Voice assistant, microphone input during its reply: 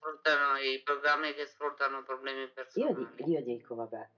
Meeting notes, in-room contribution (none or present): present